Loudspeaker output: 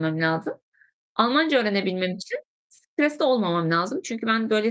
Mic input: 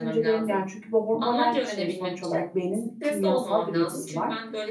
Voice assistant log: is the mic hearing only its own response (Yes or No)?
No